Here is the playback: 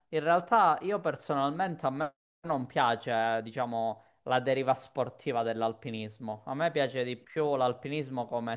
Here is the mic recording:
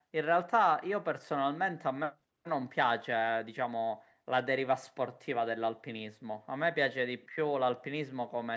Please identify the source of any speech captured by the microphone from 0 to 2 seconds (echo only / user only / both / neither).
echo only